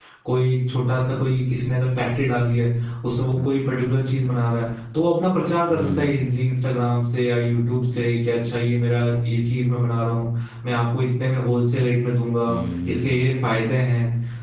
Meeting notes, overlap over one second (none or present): none